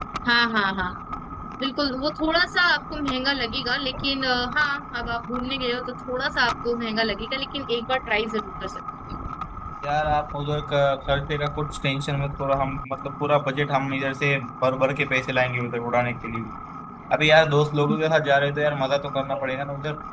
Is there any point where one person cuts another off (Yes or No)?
No